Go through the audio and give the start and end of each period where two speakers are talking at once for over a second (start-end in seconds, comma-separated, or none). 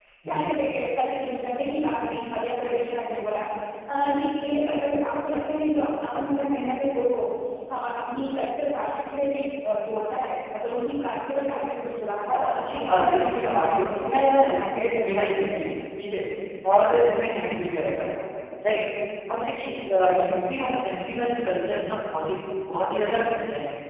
12.3-15.6